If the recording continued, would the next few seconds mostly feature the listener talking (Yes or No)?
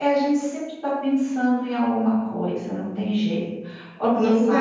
Yes